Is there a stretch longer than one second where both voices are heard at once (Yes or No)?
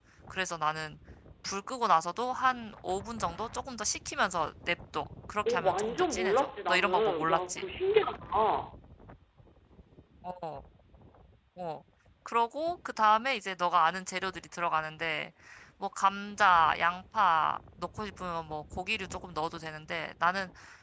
Yes